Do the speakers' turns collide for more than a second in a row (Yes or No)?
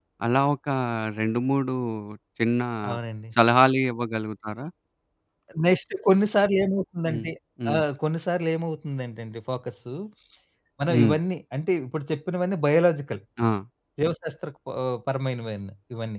No